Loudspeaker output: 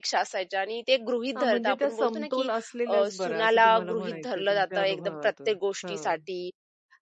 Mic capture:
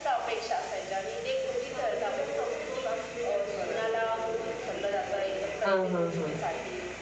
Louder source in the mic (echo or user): user